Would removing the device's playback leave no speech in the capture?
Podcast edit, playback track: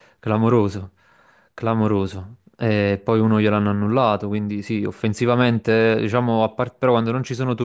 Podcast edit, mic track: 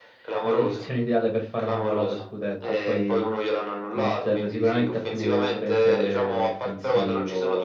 No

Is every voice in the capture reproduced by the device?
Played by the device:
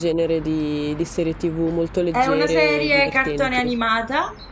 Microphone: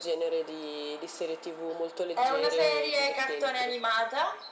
Yes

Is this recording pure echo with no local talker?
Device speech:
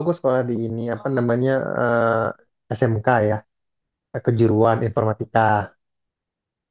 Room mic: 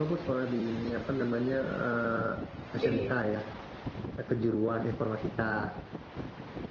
No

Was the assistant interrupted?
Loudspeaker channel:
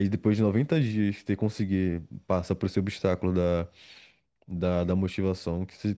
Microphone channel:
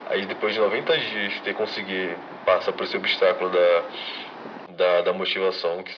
No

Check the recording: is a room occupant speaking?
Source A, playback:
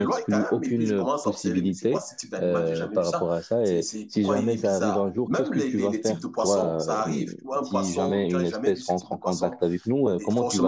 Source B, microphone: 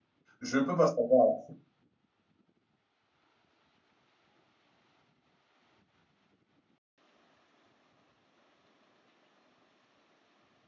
Yes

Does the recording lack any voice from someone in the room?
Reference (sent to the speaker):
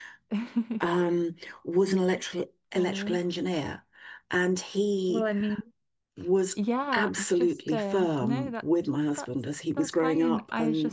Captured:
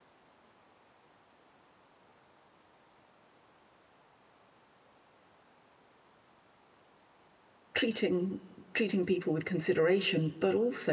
No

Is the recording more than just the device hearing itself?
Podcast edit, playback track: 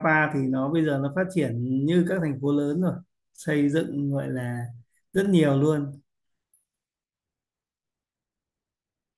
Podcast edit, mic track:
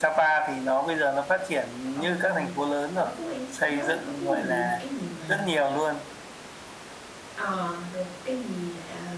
Yes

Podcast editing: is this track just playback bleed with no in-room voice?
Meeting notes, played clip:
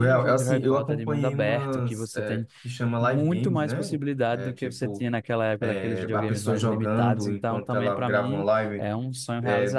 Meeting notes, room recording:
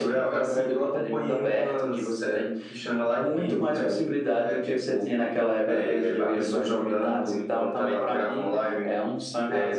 Yes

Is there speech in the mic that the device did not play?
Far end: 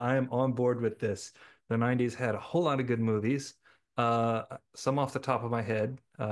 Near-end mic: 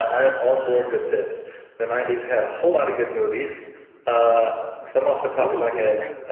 Yes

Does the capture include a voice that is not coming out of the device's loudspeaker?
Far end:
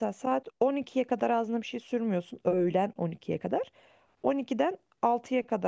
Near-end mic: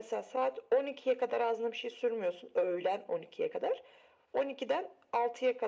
No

